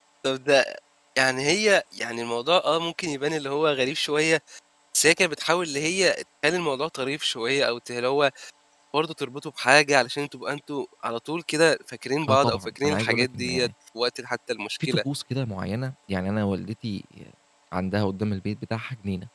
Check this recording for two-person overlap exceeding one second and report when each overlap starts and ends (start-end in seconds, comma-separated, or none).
12.3-13.7